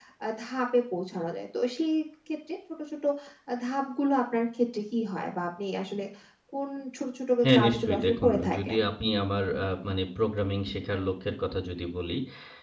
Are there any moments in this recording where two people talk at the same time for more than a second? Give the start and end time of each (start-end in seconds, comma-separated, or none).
7.4-8.8